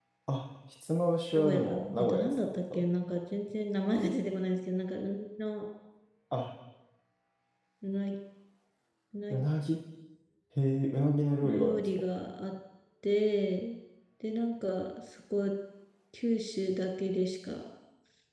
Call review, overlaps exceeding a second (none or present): present